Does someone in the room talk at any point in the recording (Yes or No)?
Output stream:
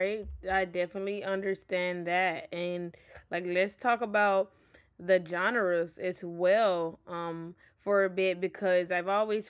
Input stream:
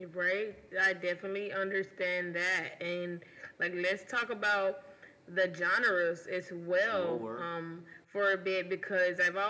Yes